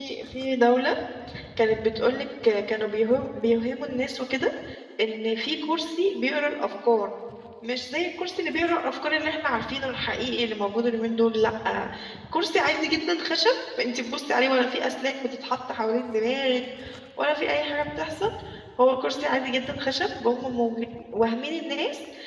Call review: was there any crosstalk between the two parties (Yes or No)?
No